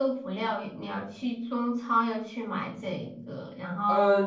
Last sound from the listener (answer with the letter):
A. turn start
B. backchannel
A